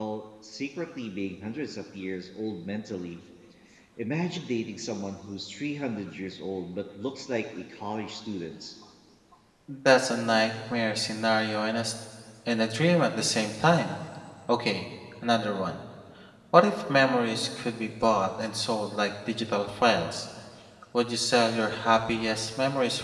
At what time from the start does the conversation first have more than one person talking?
none

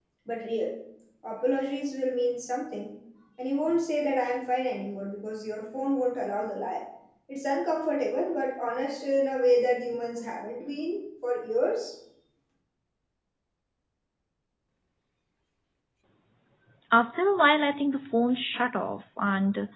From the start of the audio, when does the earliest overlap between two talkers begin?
none

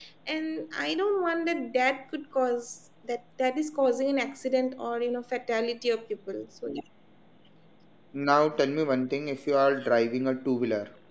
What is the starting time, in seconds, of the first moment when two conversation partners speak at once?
none

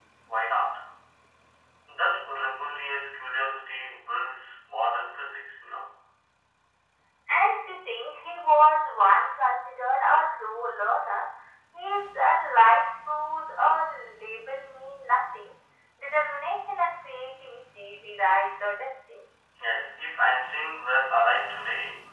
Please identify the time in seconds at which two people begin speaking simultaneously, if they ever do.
none

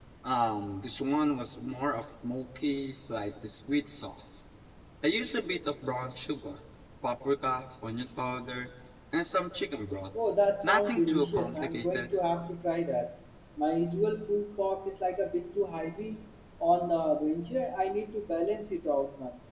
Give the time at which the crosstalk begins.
11 s

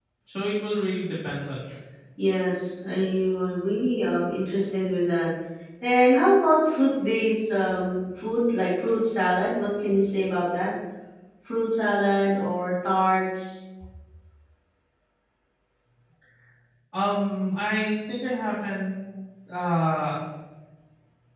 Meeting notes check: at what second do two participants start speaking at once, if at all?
none

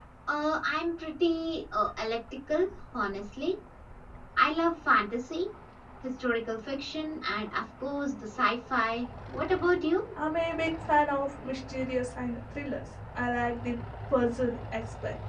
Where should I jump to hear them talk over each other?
none

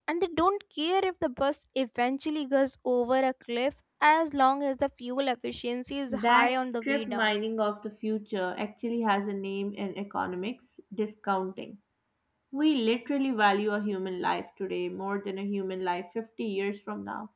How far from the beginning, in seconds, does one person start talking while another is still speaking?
6 s

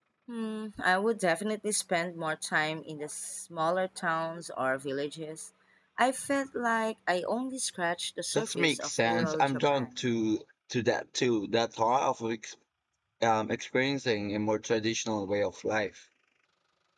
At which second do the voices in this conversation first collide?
8 s

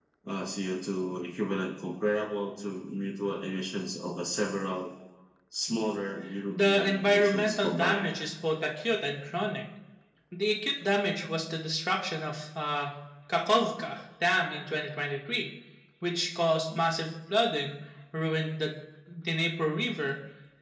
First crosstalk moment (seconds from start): 7 s

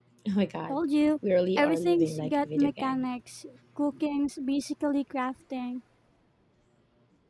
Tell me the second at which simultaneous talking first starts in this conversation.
2 s

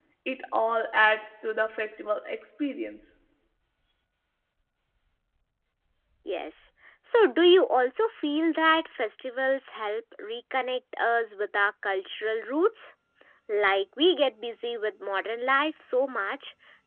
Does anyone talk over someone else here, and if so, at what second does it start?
none

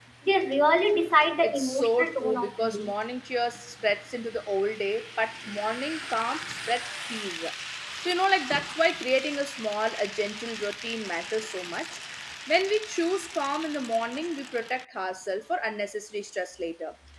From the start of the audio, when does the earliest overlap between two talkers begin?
1 s

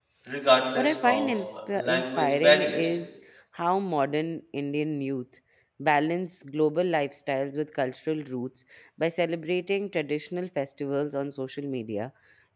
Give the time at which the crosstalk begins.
1 s

